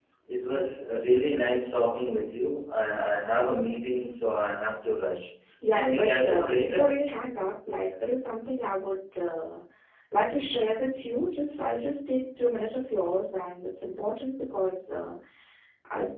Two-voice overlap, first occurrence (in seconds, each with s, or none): 5.6 s